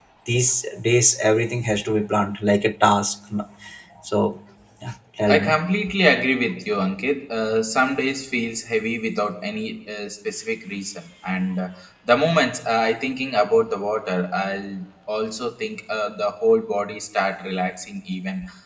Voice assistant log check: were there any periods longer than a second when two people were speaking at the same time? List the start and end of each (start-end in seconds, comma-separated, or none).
none